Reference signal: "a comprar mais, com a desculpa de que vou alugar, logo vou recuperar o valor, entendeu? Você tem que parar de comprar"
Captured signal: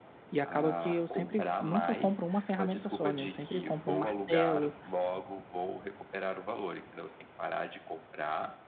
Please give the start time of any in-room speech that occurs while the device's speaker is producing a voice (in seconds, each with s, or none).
0.3 s